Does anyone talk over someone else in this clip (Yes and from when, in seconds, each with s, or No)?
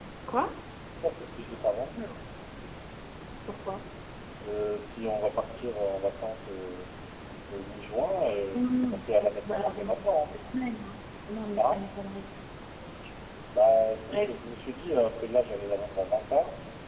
Yes, from 8.5 s